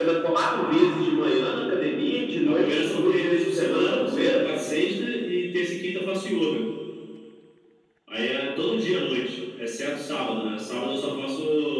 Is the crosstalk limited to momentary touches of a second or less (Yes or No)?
No